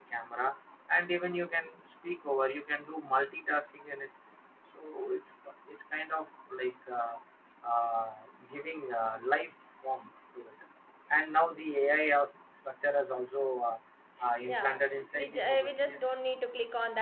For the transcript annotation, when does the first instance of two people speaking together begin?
14 s

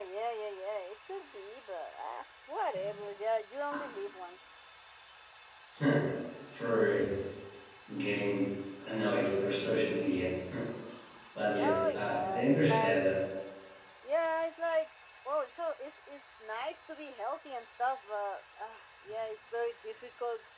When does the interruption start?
12 s

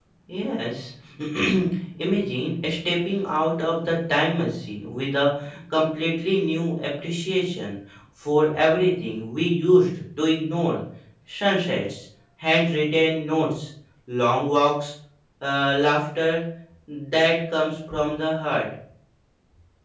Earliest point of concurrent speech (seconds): none

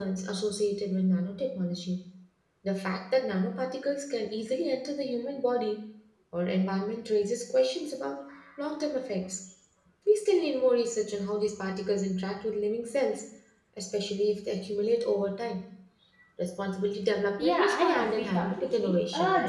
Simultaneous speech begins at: 17 s

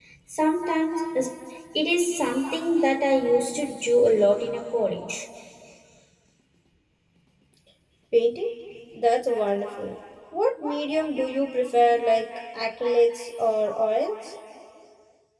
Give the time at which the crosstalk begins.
none

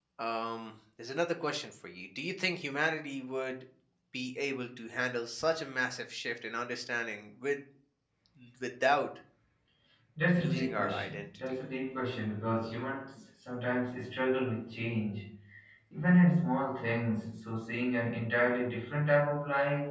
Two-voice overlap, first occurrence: 10 s

